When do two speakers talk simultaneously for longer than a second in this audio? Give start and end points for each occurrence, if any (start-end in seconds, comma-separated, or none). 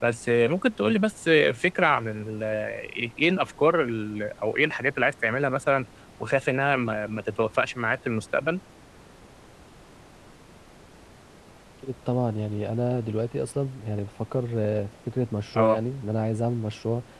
none